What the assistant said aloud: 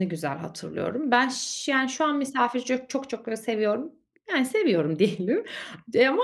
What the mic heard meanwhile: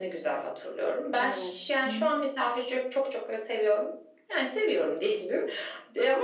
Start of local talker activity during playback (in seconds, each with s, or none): 1.2 s